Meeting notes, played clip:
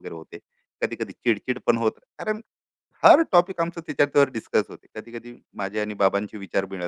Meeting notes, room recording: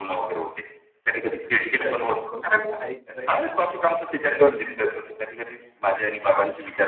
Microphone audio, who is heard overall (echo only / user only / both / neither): both